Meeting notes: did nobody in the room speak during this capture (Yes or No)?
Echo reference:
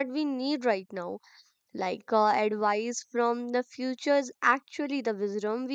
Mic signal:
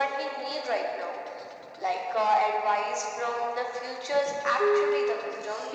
No